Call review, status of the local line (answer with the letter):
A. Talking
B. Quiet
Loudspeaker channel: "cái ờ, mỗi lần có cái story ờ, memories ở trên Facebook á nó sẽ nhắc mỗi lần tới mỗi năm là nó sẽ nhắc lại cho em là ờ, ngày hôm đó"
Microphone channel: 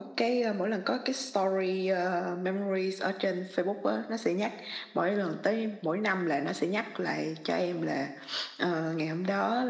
B